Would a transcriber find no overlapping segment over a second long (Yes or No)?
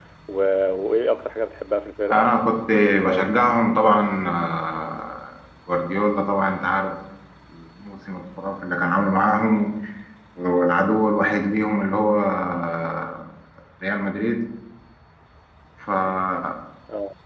Yes